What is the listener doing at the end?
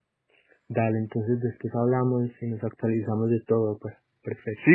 taking over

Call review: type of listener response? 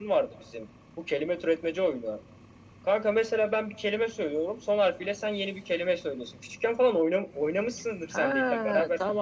taking over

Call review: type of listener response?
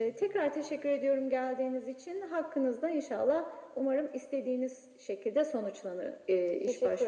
taking over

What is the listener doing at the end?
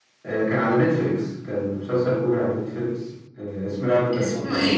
listening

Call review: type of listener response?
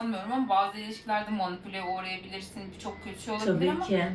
listening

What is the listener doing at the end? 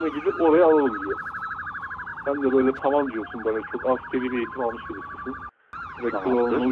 listening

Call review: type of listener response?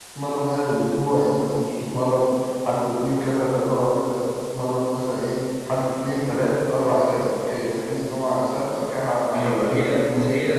taking over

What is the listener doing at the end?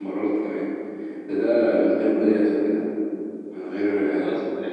taking over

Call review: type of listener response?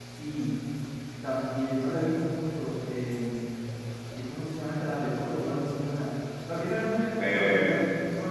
taking over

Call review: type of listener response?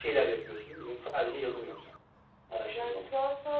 taking over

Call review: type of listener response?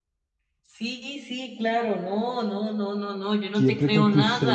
taking over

